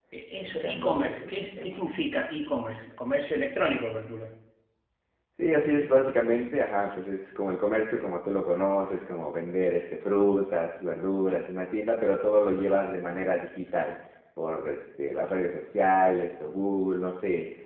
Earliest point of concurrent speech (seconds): 0.6 s

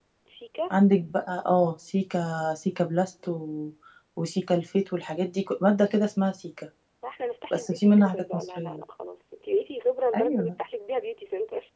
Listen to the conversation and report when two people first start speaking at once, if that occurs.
7.5 s

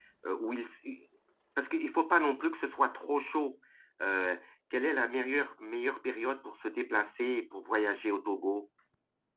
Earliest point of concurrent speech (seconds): none

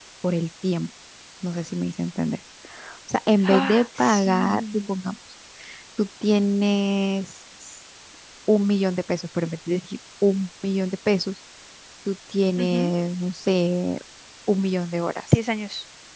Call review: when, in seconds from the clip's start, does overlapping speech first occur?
3.5 s

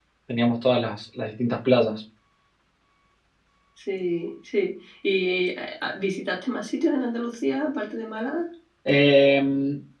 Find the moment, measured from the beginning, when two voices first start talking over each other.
none

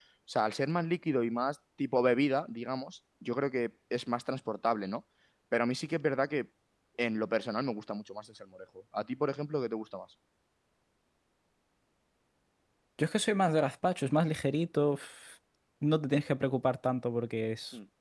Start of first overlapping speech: none

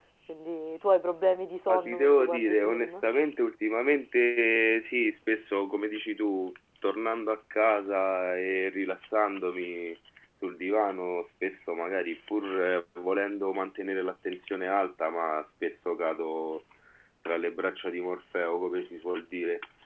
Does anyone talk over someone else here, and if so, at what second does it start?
1.7 s

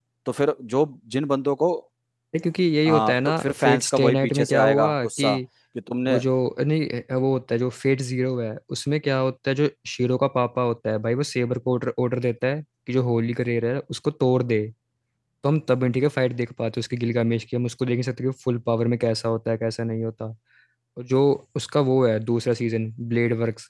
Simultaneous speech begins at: 2.9 s

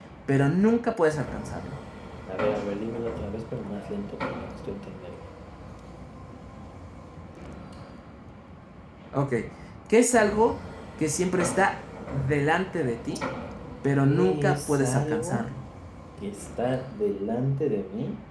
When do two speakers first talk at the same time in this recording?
14.0 s

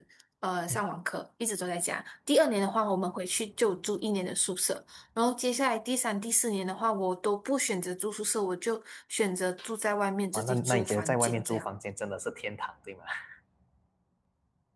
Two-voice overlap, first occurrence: 10.3 s

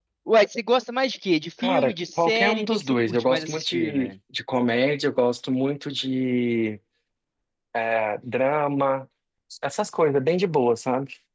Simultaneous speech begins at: 1.6 s

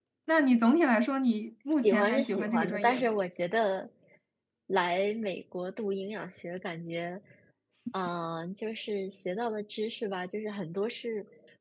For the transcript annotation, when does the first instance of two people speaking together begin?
1.8 s

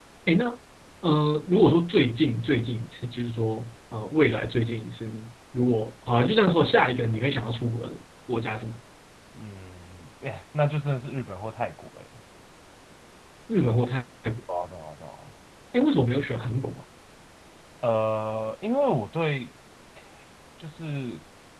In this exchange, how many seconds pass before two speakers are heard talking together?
none

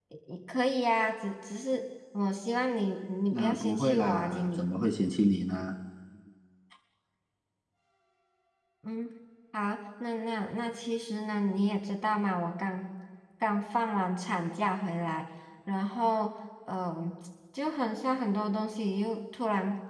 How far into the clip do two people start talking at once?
3.3 s

